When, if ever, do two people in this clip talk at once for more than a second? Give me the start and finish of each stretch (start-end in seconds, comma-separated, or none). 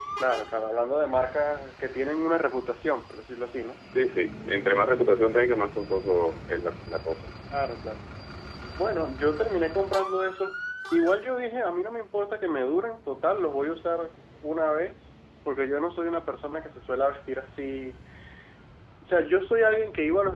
none